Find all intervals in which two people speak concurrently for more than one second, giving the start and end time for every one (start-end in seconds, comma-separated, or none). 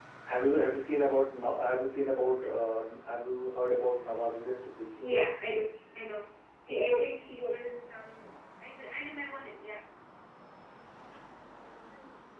none